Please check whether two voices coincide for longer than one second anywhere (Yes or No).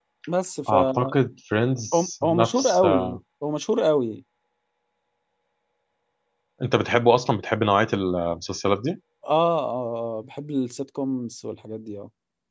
Yes